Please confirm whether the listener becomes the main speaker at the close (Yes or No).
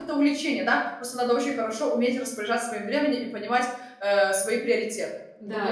Yes